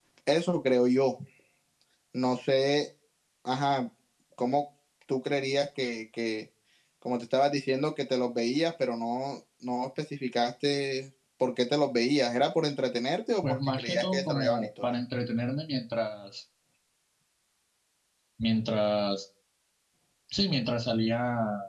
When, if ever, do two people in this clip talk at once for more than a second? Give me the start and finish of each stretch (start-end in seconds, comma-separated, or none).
13.4-14.9